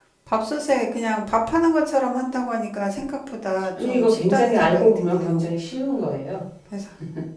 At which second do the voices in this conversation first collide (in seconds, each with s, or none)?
3.8 s